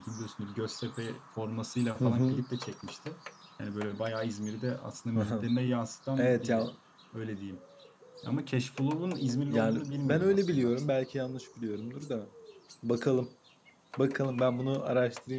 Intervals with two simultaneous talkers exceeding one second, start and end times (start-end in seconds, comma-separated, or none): 9.5-10.7